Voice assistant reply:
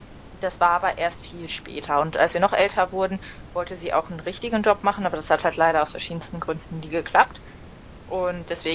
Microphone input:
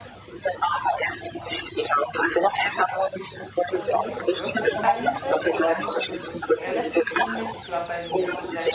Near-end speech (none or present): present